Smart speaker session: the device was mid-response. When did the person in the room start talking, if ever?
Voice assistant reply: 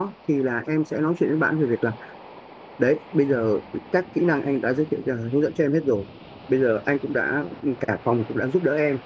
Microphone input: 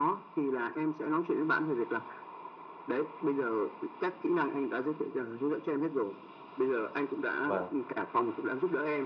7.4 s

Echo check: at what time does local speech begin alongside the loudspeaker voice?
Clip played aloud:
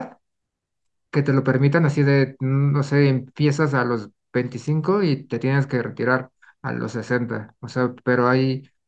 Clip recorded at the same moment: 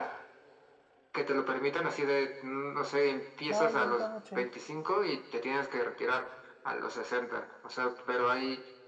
3.5 s

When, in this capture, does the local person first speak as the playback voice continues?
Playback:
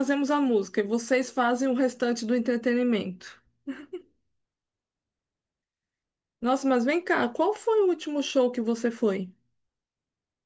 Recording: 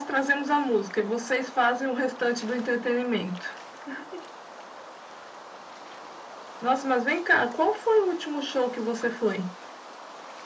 none

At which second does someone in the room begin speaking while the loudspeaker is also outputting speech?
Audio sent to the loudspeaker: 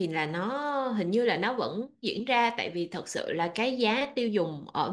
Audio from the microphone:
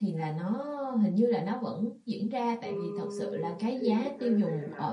2.6 s

